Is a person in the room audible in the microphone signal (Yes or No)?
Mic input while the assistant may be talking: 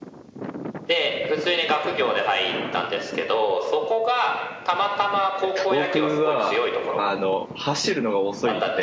Yes